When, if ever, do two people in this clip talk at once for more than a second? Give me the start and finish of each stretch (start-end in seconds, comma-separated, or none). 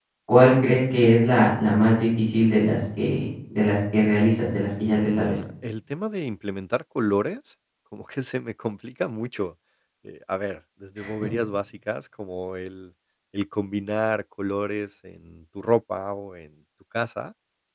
none